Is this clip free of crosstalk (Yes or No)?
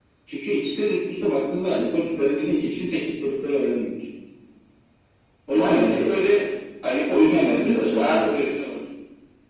No